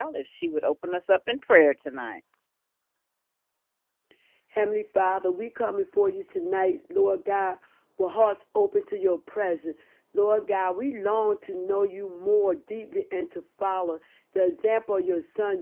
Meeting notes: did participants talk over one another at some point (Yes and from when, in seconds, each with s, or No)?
No